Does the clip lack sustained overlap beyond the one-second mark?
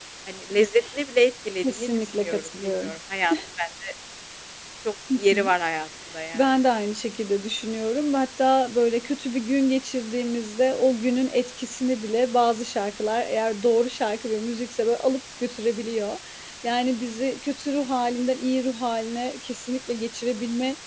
No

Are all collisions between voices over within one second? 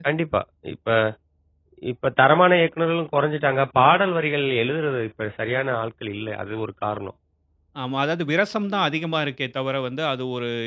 Yes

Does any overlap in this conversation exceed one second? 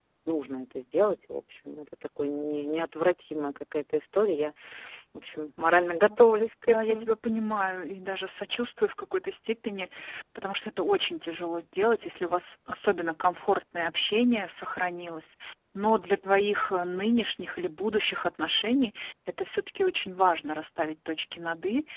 No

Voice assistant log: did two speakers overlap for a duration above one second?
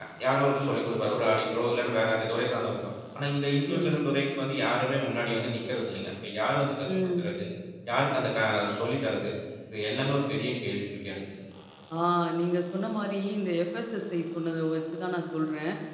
No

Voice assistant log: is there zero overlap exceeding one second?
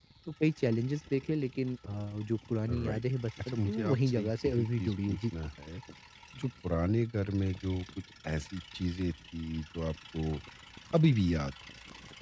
No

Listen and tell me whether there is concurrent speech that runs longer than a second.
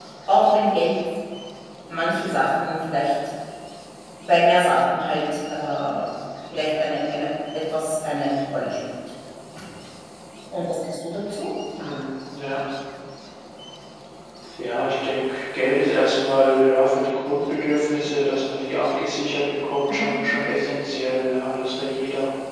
No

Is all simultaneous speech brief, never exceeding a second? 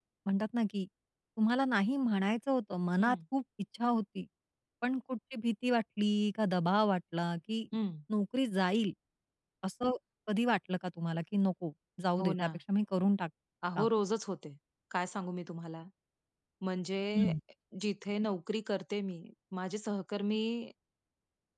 Yes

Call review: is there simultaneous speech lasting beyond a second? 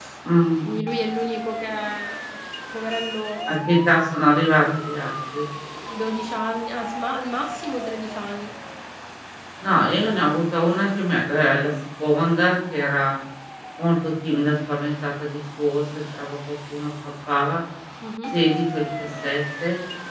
No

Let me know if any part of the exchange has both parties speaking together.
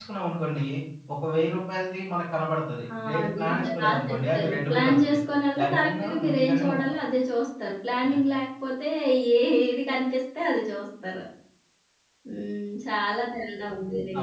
Yes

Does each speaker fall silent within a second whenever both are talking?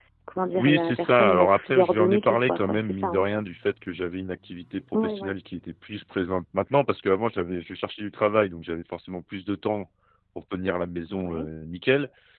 No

